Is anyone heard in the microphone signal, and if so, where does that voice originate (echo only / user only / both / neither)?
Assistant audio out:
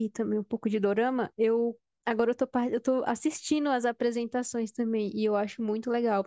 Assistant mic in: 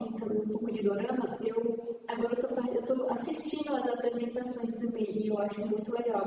echo only